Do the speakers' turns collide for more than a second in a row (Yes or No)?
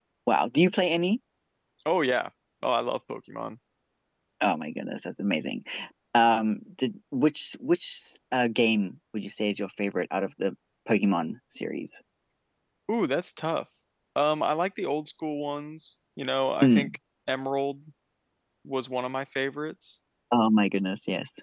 No